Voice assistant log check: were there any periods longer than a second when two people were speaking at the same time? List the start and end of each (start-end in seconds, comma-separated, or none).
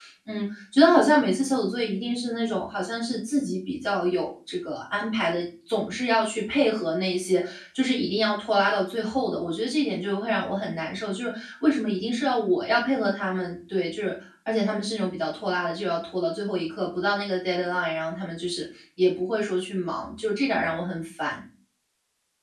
none